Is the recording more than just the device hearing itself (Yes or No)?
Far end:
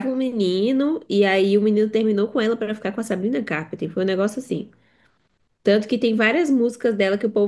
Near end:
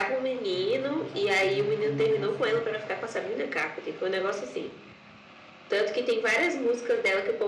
Yes